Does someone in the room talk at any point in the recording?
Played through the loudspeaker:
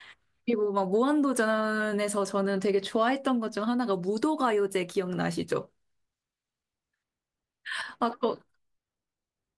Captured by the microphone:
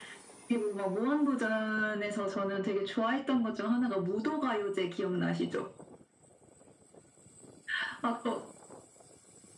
No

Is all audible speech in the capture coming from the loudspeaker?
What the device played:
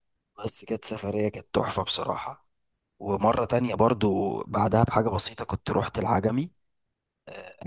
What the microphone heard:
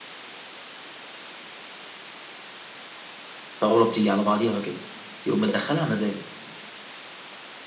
No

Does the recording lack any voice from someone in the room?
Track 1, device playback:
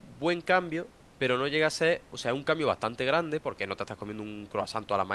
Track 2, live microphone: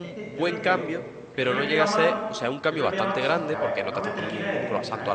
No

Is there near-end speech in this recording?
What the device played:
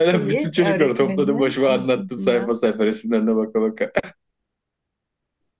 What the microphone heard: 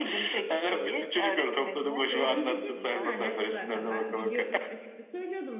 Yes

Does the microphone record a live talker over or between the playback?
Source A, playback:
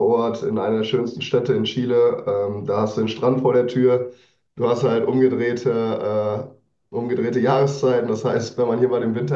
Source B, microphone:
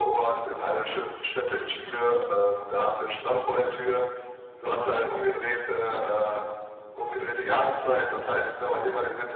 No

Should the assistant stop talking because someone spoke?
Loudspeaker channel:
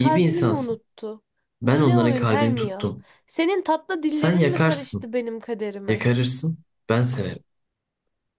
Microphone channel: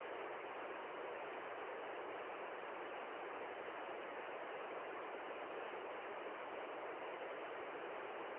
No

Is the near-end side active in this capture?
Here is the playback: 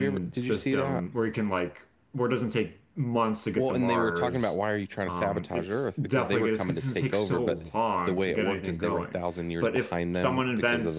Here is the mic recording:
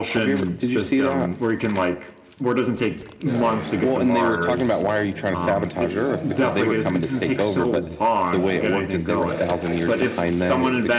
Yes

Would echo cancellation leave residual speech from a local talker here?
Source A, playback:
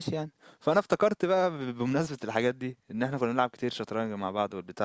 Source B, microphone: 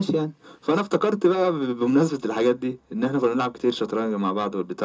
No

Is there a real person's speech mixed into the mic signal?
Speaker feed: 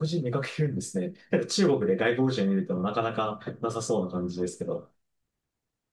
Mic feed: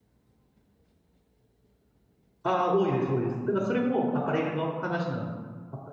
Yes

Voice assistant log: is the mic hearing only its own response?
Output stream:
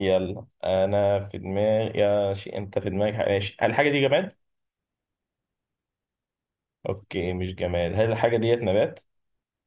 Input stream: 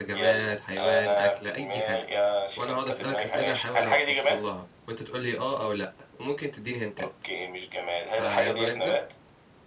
No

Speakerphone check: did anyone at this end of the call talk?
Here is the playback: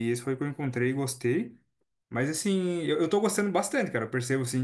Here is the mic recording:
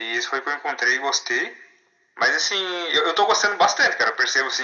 No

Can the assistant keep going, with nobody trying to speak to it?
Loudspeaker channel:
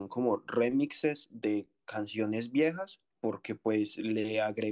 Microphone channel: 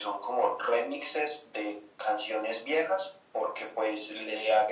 Yes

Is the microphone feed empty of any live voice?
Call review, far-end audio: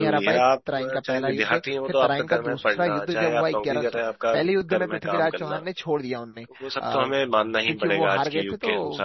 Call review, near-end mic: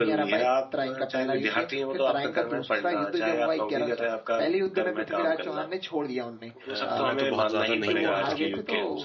No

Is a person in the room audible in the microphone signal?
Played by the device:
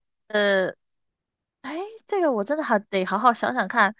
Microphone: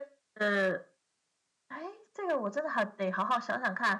No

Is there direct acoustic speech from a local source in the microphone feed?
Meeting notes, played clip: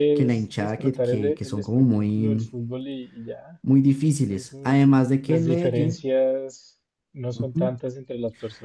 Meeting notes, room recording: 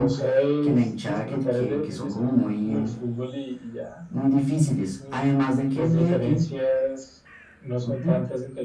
No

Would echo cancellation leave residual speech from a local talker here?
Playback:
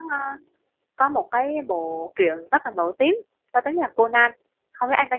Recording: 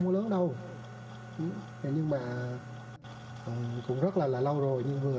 Yes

